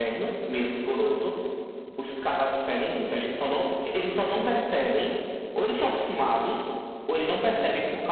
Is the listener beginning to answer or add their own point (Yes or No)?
No